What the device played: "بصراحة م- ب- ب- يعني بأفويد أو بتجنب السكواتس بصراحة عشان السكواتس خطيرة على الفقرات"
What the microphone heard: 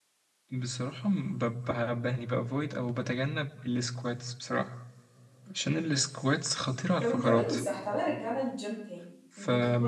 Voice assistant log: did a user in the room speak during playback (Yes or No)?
Yes